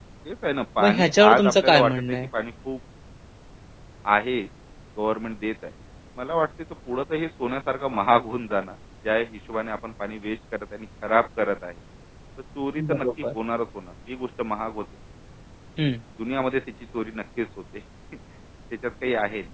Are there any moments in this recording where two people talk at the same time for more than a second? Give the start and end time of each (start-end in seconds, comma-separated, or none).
0.8-2.2